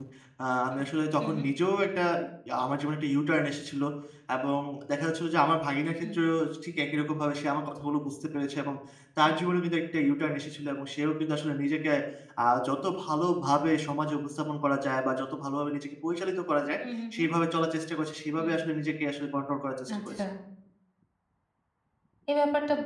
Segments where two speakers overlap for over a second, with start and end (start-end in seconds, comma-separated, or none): none